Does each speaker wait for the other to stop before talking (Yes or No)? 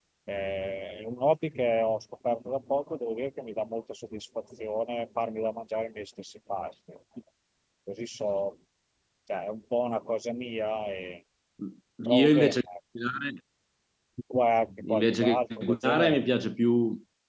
No